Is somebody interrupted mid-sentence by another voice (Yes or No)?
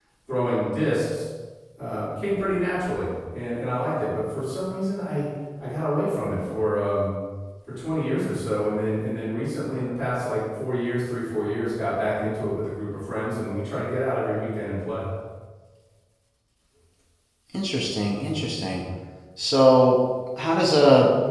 No